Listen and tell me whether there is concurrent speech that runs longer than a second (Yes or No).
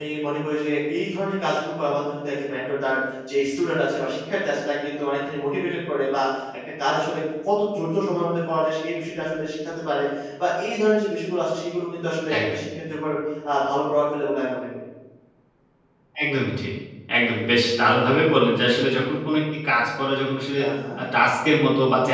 No